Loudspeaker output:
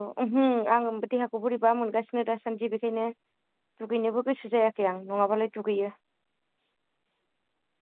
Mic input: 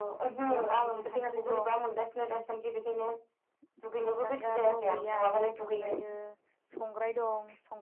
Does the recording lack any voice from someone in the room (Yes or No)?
No